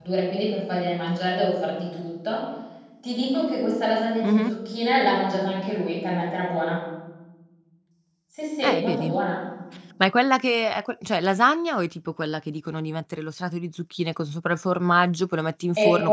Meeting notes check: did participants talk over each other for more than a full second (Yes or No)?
No